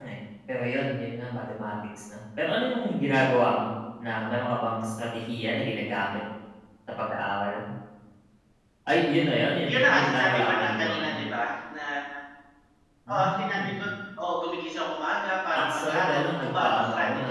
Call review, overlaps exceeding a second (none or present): present